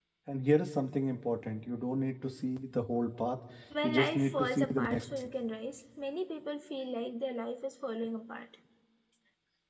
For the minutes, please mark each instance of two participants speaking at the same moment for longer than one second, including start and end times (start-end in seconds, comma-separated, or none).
3.8-5.0